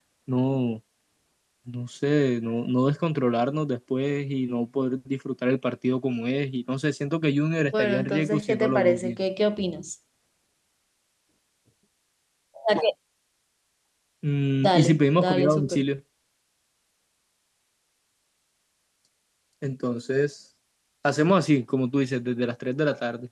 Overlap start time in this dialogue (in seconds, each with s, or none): 7.8 s